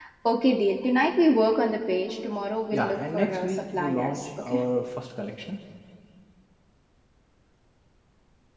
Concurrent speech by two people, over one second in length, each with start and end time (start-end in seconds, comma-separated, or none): 2.7-4.6